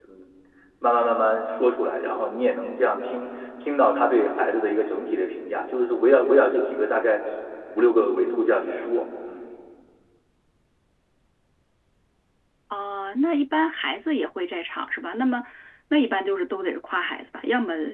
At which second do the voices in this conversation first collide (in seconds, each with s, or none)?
none